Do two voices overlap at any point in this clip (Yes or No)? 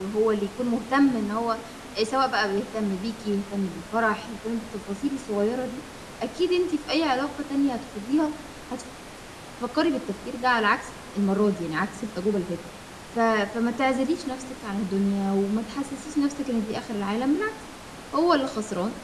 No